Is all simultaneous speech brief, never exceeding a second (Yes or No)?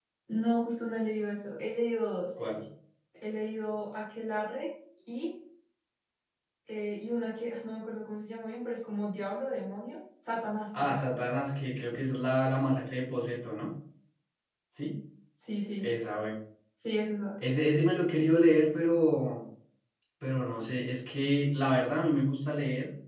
Yes